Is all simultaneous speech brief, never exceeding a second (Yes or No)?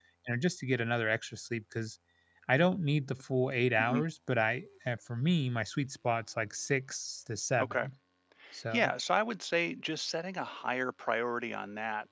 Yes